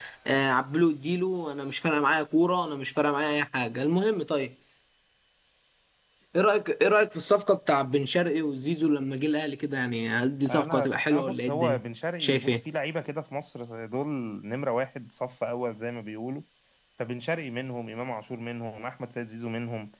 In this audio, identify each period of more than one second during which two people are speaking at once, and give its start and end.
10.5-11.8

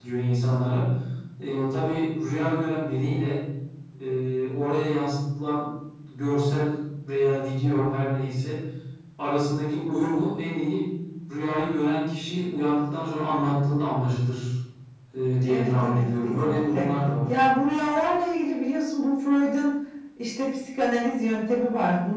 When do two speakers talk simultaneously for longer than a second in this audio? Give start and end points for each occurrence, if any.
15.4-16.9

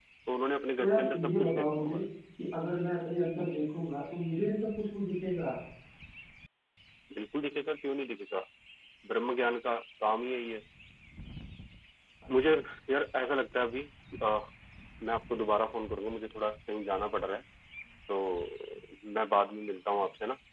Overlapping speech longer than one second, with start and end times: 0.8-2.0

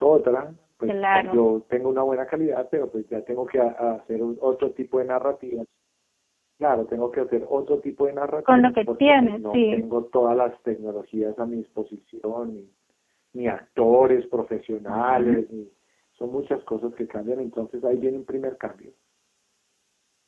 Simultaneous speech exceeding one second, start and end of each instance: 8.5-9.8

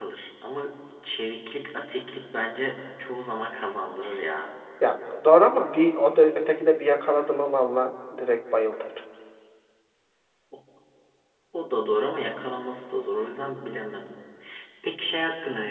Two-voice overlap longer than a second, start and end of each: none

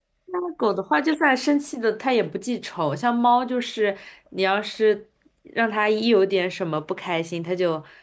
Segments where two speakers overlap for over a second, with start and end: none

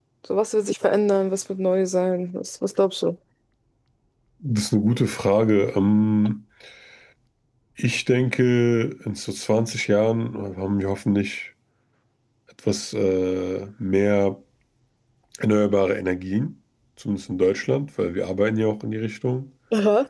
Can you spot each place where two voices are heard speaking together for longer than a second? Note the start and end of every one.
none

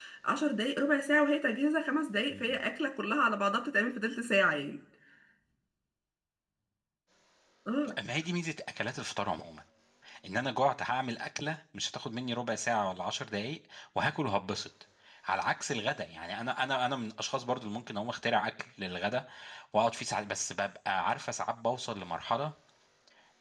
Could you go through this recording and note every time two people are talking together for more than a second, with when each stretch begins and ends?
none

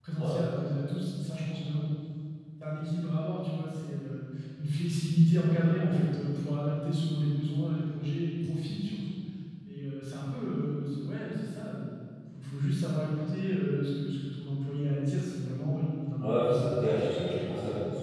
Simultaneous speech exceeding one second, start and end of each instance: 16.2-17.4

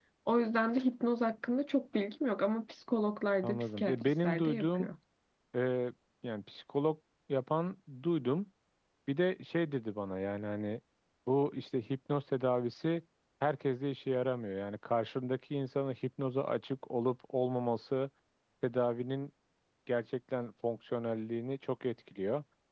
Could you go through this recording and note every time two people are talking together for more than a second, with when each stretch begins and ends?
3.4-4.9

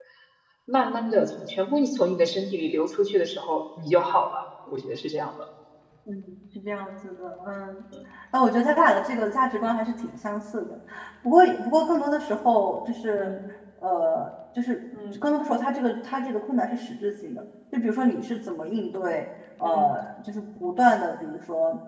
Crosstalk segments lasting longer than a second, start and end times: none

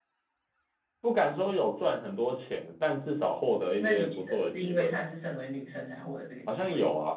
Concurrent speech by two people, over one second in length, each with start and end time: 3.8-5.0

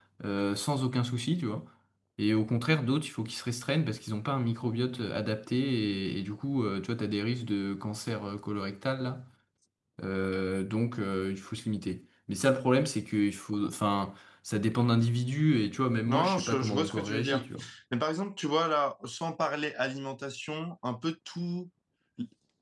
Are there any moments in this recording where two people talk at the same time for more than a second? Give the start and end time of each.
16.1-17.4

